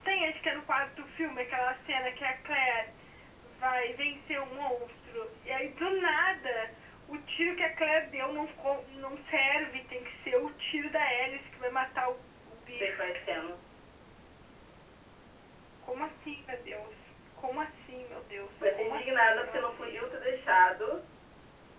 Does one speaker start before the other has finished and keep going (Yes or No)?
Yes